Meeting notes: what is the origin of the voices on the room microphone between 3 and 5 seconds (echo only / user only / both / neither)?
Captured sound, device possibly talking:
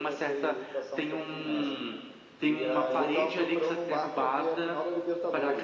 echo only